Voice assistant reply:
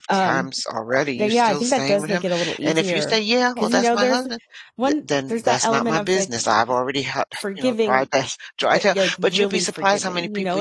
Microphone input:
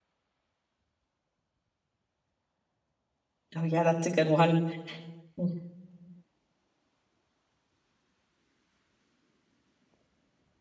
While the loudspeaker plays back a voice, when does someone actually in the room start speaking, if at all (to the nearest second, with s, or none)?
4 s